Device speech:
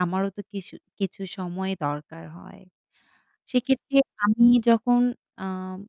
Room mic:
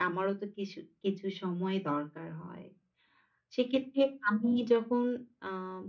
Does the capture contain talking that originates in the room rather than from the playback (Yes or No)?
No